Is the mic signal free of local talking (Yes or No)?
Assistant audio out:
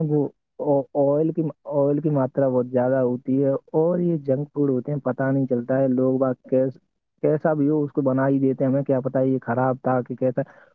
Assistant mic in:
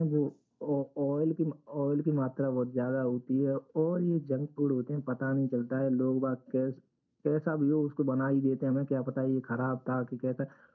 Yes